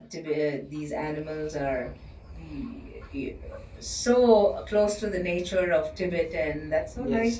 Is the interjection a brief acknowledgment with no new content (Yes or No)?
No